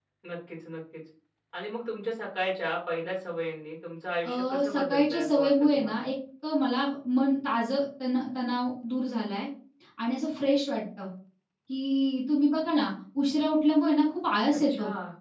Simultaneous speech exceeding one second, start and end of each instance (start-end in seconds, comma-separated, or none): 4.2-6.0